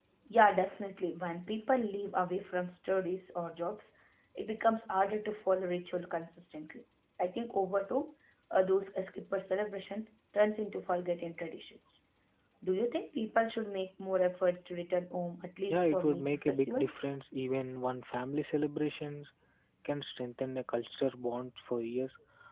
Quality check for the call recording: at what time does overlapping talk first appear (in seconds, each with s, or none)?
15.6 s